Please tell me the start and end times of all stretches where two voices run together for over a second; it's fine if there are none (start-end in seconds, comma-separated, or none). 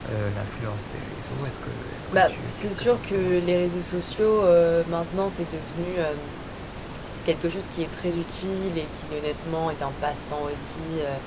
2.1-3.4